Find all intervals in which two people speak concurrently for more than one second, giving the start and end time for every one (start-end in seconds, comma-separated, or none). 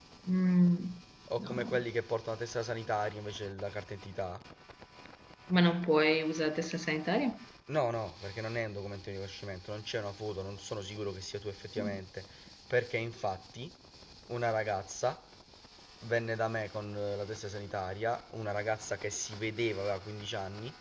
none